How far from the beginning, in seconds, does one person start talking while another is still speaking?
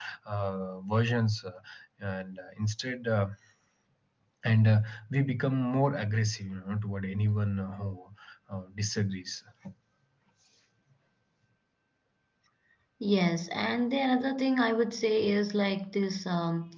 none

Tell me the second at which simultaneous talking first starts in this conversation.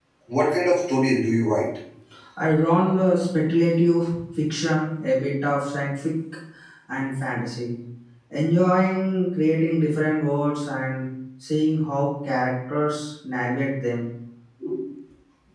none

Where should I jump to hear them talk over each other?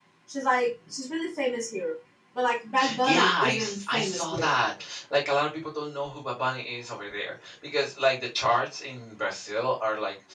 3.0 s

